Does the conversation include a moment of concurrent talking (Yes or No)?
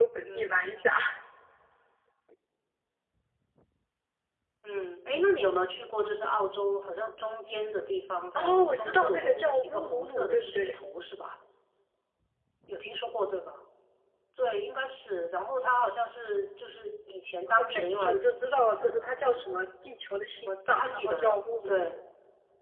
Yes